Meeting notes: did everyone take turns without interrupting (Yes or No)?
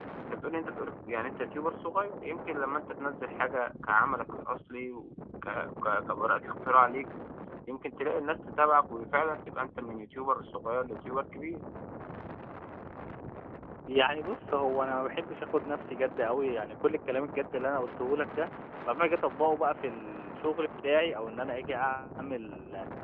Yes